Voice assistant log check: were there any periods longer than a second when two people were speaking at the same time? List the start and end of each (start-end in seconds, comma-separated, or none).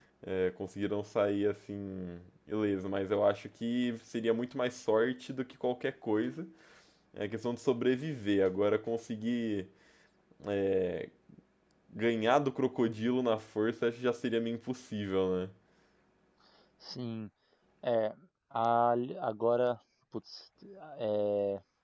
none